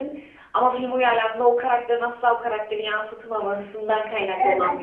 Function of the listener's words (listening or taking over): taking over